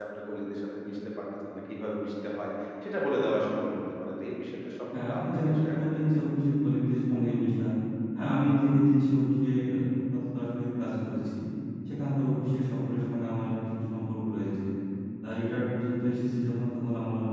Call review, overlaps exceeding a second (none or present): present